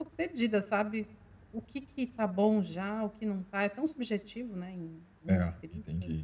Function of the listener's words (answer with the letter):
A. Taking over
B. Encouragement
A